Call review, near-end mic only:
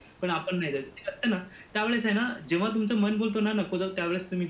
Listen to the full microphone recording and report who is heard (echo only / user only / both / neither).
echo only